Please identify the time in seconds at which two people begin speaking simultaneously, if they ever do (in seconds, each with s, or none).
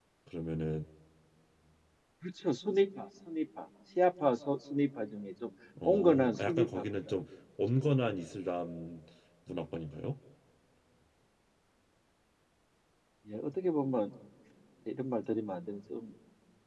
5.8 s